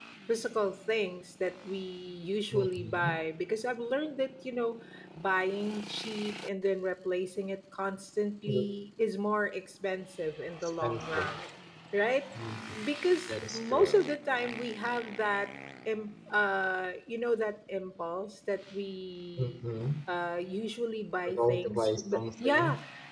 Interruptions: present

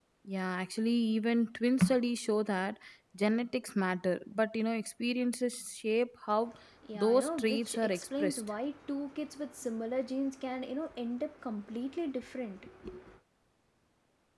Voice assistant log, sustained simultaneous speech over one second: present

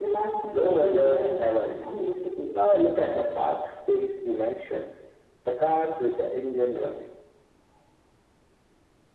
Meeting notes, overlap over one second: present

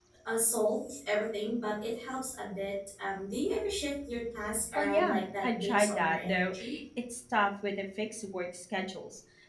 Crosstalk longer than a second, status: present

